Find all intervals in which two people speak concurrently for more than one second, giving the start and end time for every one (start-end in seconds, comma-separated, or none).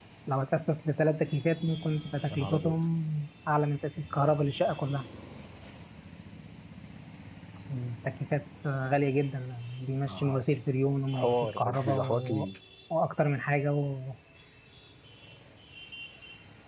11.1-12.4